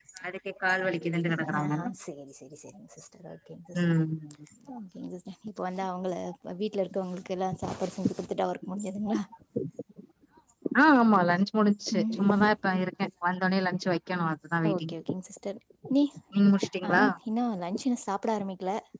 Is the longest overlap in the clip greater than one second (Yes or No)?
No